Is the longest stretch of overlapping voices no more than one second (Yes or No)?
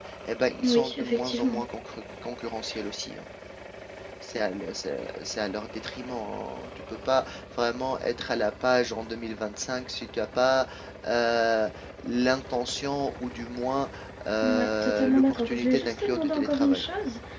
No